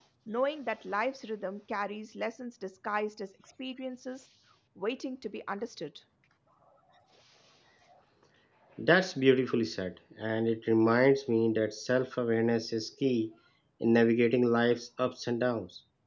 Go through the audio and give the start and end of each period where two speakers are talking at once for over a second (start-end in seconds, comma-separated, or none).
none